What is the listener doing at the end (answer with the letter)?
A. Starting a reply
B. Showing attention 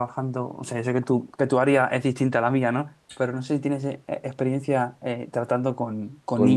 A